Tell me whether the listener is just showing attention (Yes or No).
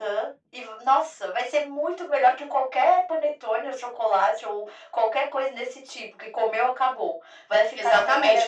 No